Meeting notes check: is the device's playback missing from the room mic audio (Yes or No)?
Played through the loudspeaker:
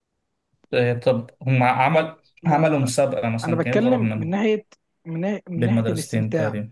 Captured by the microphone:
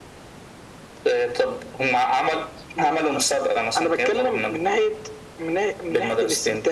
No